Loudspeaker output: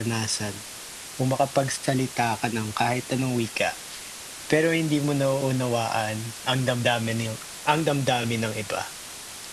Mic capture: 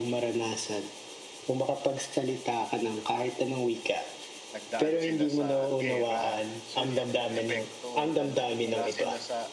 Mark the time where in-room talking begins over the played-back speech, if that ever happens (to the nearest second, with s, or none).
5 s